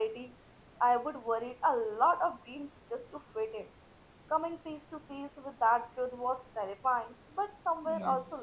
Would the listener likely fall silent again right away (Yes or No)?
No